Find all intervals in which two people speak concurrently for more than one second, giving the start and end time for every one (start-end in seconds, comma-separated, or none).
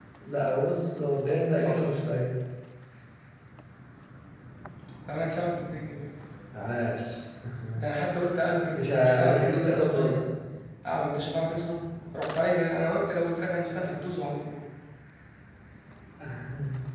8.7-10.2